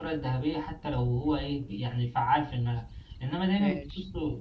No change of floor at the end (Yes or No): Yes